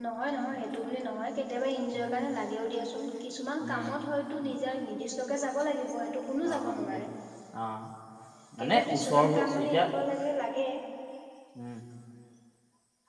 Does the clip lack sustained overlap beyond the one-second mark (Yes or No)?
No